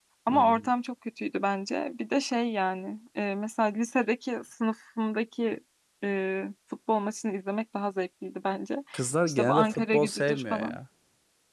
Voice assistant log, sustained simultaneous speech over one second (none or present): present